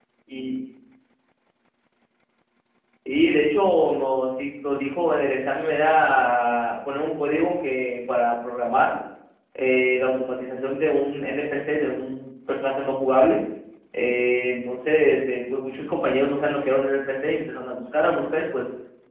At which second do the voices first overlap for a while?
none

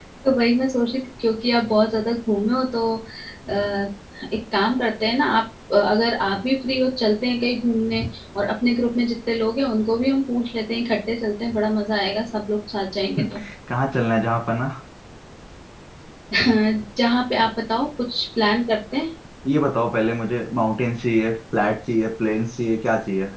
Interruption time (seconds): none

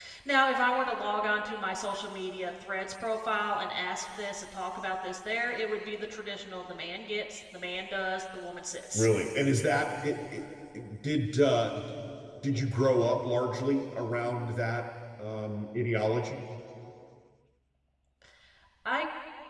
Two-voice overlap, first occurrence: none

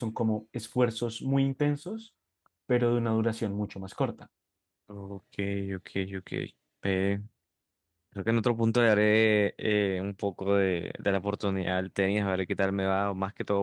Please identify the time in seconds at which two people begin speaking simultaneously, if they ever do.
none

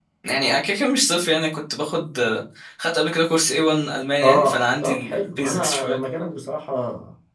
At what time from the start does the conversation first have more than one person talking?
4.2 s

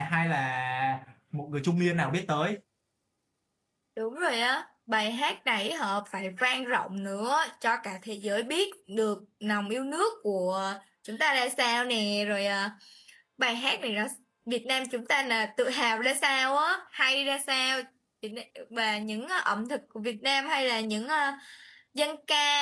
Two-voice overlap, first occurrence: none

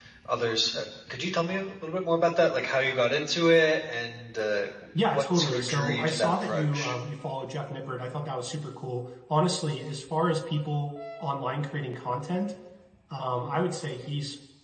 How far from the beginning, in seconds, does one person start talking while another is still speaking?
5.1 s

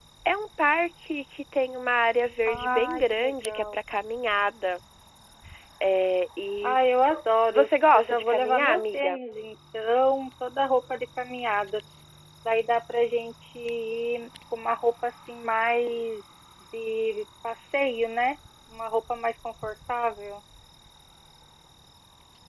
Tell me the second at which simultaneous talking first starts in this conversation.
2.5 s

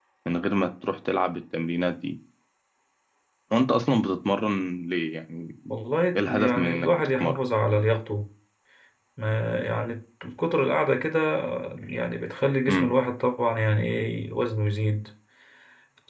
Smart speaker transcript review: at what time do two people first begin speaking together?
6.2 s

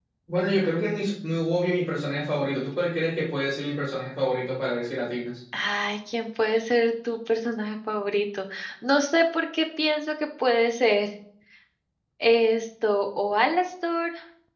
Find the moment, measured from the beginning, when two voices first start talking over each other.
none

